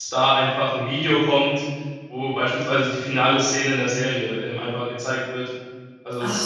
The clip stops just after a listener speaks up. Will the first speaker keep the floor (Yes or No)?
No